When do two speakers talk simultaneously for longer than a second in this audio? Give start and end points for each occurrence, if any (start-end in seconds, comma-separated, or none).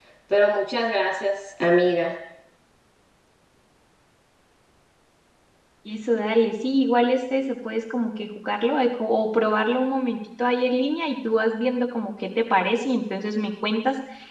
none